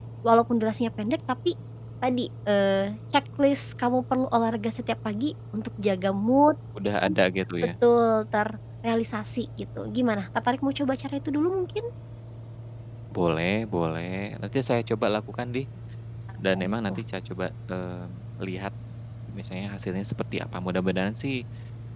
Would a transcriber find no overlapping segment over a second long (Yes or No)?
Yes